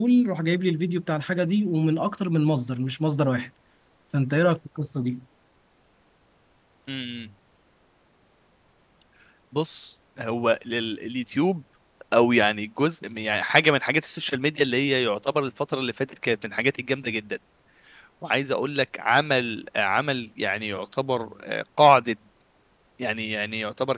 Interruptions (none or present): none